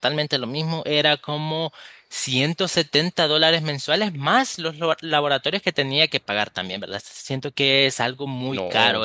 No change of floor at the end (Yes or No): No